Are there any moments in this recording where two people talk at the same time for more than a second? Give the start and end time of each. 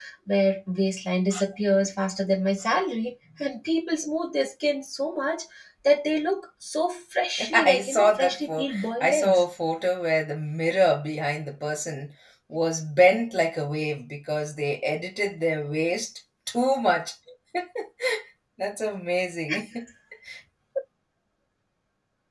7.5-9.4

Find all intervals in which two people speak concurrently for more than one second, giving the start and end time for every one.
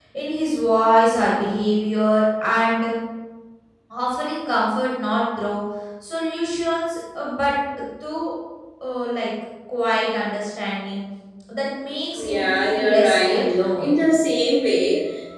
12.2-13.9

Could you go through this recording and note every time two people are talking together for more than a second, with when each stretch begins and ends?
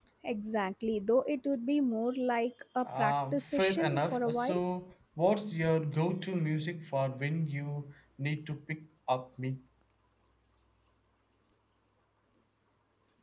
2.8-4.6

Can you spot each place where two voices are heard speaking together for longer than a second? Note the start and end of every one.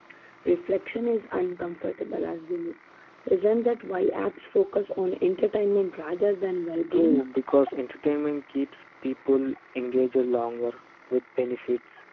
none

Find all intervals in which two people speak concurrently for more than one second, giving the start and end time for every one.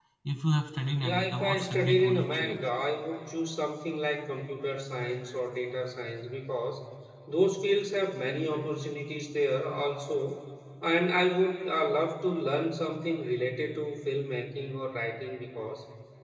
1.0-2.6

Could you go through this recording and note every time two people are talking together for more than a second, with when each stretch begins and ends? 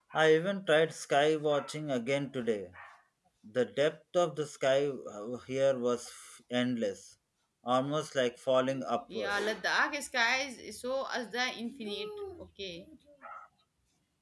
none

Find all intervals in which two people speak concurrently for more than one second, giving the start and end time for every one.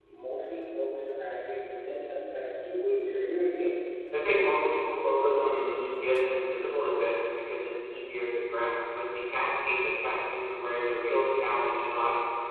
none

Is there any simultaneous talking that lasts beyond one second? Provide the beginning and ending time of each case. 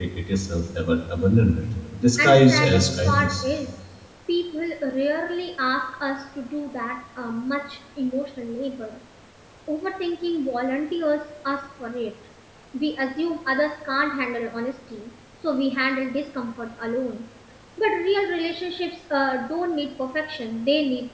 2.2-3.4

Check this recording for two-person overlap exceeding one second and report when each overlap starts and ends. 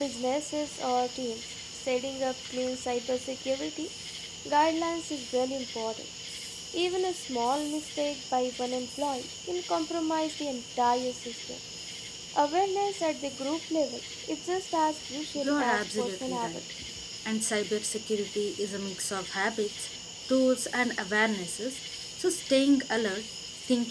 15.3-16.6

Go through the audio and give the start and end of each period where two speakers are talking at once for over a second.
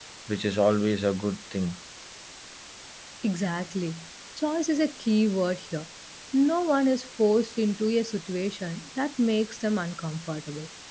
none

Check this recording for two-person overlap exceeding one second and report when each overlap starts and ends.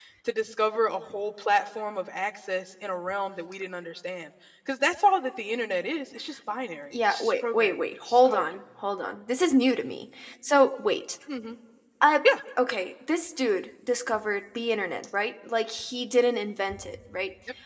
7.1-8.5

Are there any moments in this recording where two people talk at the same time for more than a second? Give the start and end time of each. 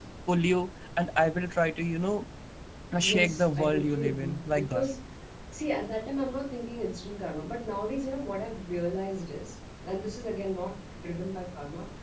3.0-4.9

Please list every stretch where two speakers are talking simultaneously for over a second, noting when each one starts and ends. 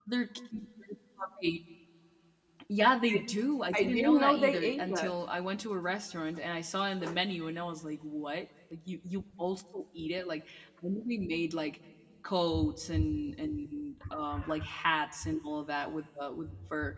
3.8-5.2

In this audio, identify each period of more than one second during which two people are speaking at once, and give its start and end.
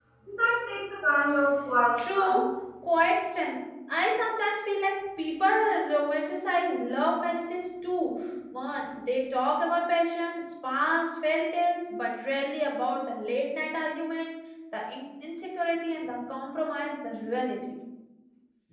none

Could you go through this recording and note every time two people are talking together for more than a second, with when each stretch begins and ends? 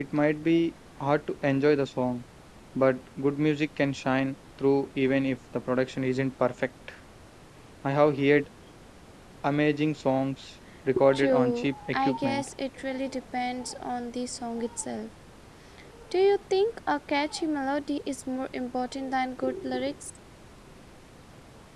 11.2-12.5

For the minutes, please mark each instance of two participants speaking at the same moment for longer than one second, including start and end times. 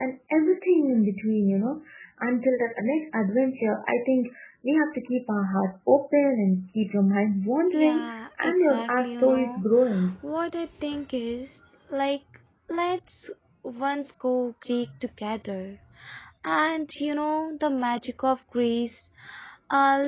7.7-9.6

